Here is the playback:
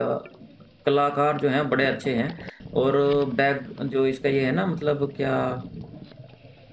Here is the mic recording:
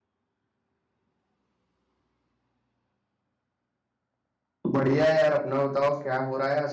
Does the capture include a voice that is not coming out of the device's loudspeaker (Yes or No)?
Yes